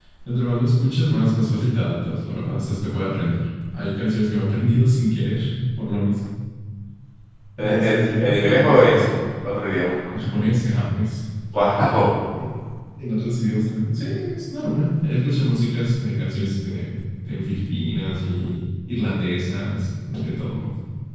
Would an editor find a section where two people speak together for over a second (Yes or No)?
Yes